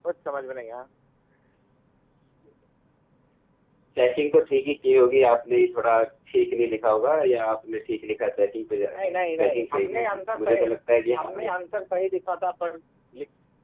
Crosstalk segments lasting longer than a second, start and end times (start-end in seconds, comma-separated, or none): 9.4-10.7